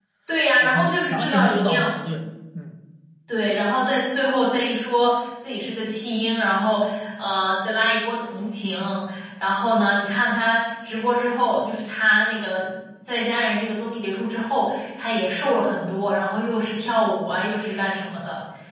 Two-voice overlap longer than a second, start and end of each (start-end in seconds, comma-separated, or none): 0.6-1.9